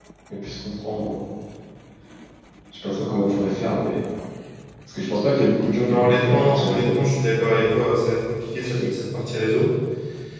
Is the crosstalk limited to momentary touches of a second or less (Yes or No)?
No